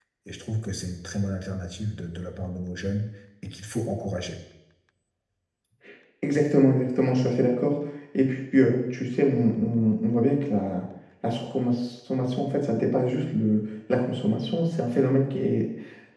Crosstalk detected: No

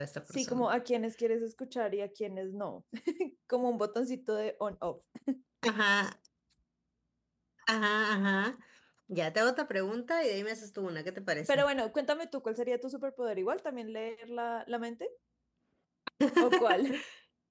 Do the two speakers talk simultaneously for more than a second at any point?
No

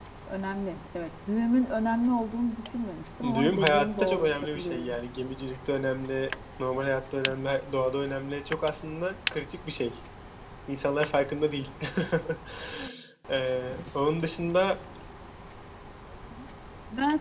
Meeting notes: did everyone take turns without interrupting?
No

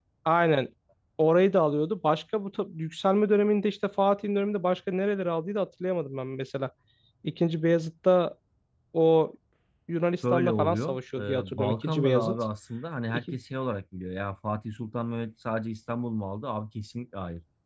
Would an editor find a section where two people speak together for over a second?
Yes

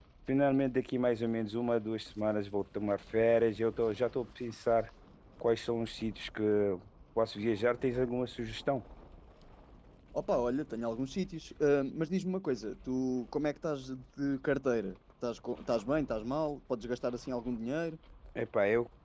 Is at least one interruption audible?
No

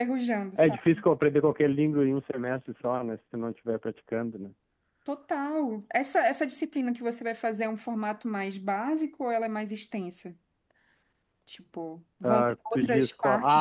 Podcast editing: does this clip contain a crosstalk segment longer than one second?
Yes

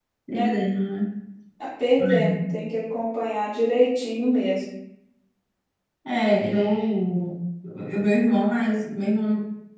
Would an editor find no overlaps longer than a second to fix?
Yes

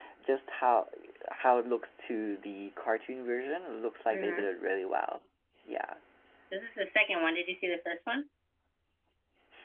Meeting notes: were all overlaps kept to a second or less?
Yes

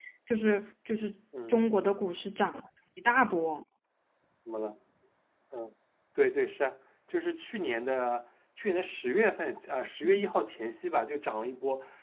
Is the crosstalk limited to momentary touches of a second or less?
Yes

